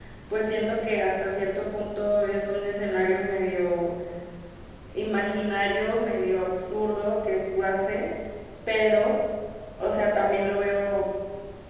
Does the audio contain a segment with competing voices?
No

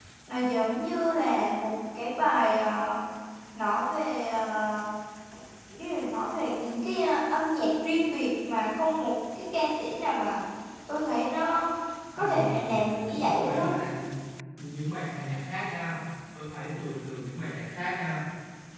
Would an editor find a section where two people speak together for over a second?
Yes, from 12.2 s

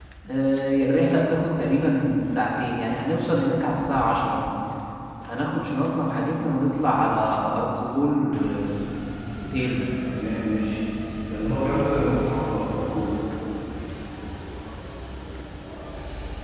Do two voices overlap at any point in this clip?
No

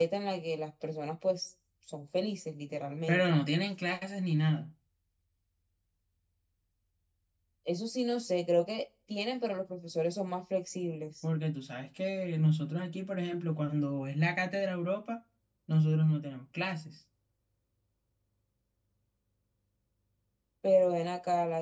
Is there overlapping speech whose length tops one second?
No

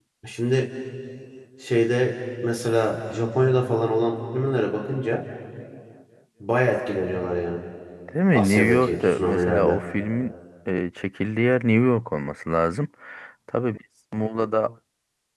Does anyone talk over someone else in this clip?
Yes, from 8.3 s

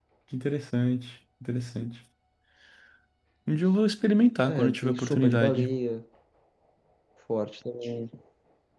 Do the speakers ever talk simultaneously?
Yes, from 4.4 s

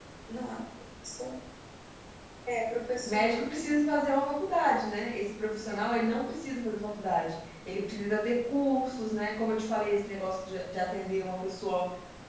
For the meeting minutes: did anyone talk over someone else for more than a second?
No

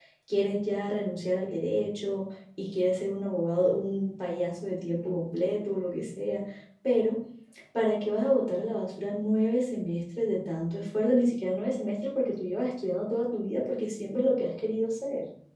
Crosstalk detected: No

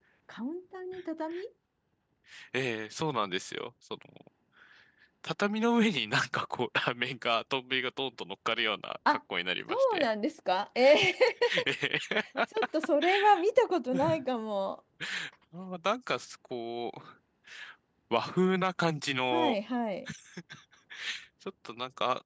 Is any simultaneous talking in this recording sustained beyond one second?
No

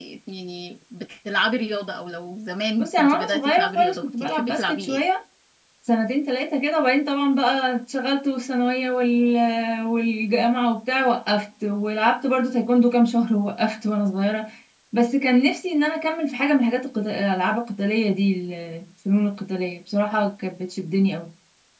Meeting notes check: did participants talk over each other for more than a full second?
Yes, from 2.8 s

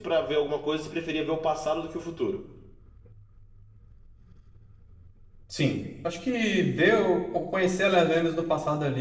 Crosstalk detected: No

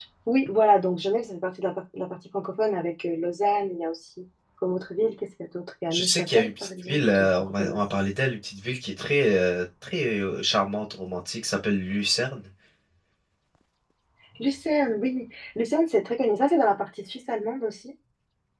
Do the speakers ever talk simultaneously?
Yes, from 5.9 s

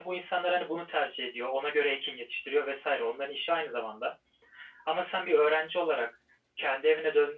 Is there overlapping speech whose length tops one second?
No

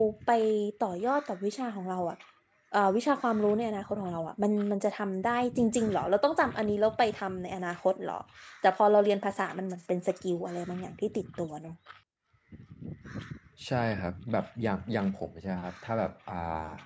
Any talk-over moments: No

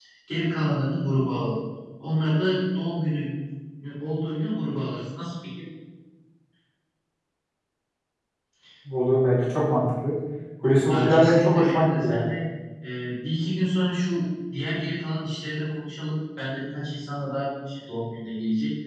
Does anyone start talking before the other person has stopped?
Yes, from 10.9 s

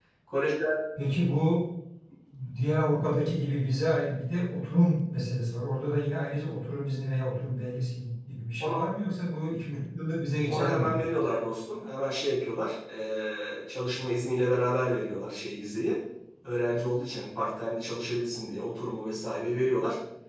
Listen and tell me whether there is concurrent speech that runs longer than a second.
No

